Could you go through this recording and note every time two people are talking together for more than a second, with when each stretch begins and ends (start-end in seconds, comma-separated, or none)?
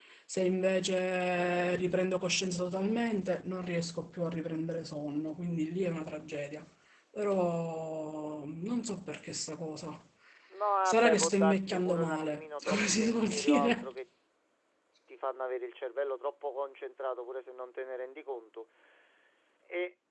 10.8-13.9